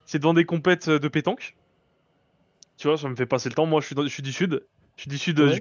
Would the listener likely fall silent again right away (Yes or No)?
Yes